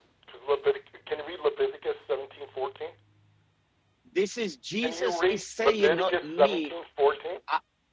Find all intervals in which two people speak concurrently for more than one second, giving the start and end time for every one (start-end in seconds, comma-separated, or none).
4.8-6.7